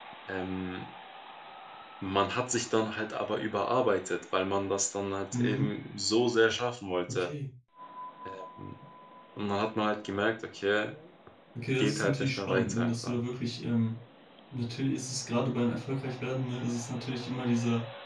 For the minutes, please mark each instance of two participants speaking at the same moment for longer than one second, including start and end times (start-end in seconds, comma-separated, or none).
11.8-13.2